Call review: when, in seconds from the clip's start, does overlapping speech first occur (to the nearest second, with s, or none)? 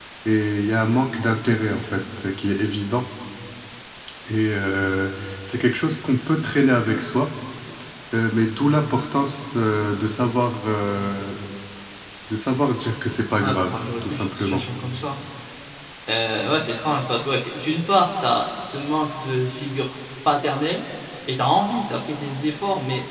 13 s